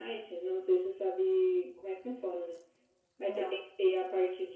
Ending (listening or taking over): listening